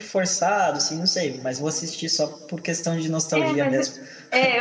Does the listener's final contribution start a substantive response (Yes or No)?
Yes